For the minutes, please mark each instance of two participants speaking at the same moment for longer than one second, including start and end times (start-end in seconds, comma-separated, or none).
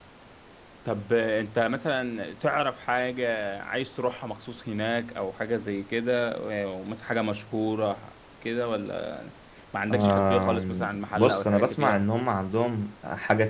9.9-12.1